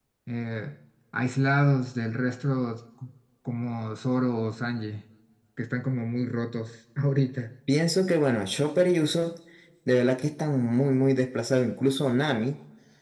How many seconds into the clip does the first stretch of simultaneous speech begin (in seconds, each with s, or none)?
none